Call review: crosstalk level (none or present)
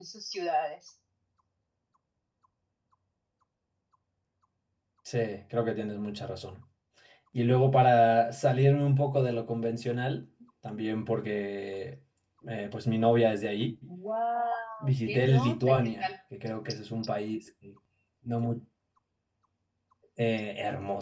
present